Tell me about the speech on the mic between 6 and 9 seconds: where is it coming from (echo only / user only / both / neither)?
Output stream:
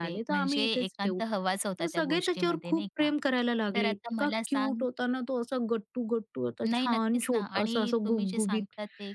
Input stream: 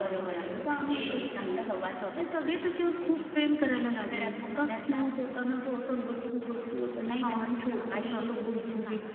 echo only